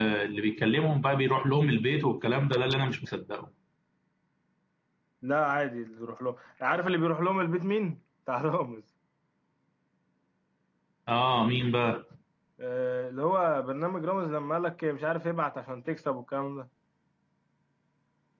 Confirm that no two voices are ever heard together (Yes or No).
Yes